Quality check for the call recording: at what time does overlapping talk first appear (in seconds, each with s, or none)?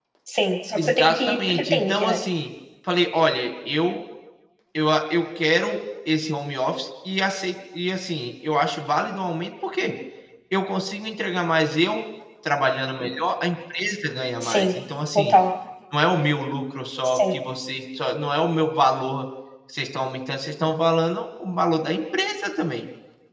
0.8 s